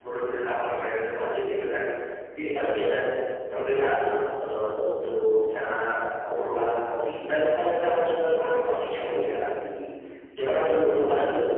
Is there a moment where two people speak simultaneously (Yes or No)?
No